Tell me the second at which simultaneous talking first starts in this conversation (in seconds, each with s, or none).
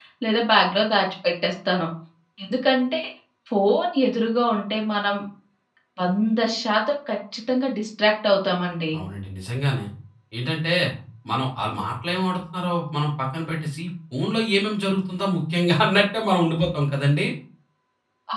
none